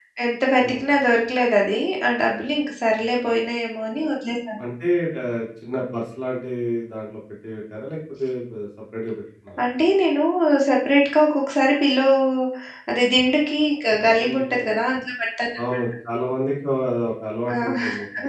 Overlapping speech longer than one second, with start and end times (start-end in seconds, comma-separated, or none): none